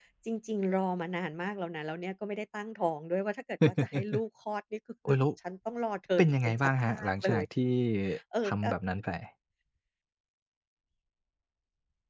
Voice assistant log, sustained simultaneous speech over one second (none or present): present